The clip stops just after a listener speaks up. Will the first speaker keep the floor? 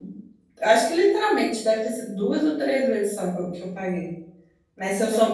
No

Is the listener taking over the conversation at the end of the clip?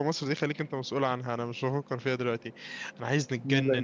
No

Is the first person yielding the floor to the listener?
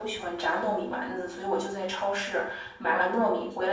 No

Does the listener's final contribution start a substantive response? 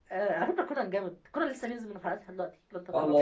Yes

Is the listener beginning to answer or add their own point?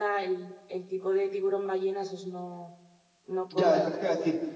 Yes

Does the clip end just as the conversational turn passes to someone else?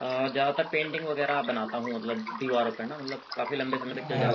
Yes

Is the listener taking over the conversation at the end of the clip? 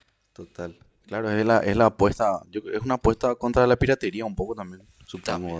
Yes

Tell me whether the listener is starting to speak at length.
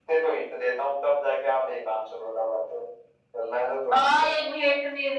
Yes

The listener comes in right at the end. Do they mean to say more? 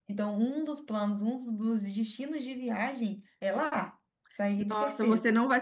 Yes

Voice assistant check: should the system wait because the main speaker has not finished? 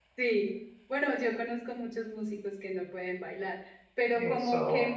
Yes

